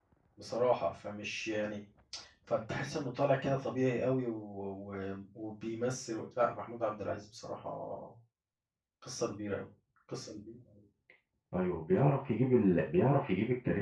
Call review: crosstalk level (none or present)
none